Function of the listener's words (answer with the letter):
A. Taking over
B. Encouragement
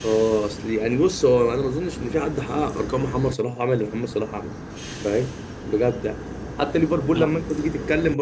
B